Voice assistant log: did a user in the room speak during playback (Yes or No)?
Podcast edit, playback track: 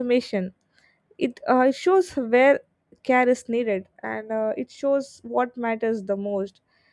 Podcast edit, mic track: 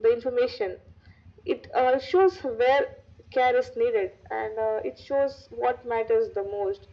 No